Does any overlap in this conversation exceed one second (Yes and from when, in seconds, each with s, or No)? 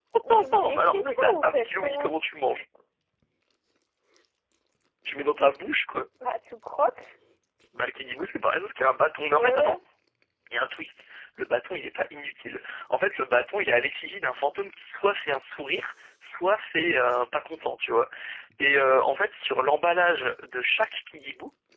Yes, from 0.5 s